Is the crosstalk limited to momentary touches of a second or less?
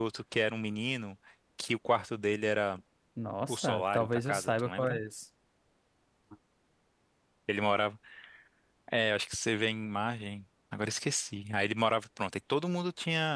No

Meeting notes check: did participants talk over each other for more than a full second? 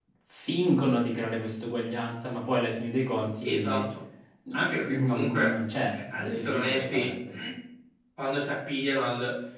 Yes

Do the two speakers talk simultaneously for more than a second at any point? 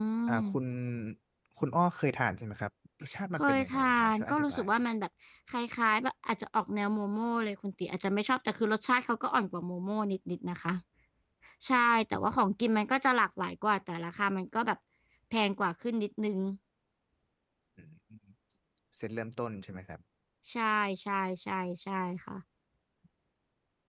Yes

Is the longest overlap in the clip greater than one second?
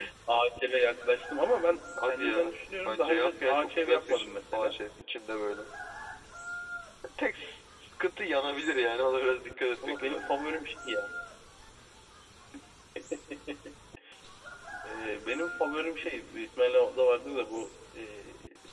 Yes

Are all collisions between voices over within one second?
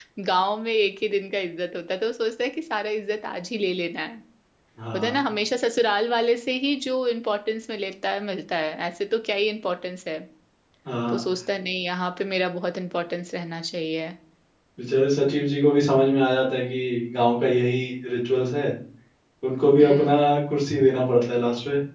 Yes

